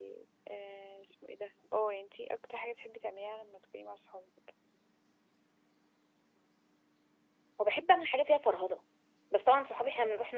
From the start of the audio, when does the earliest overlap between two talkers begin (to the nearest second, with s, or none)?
none